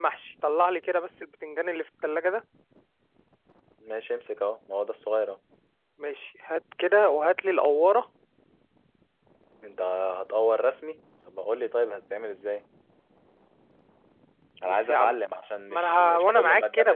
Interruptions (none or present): present